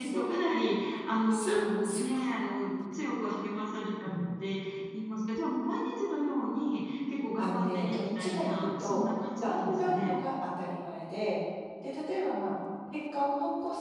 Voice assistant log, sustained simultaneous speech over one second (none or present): present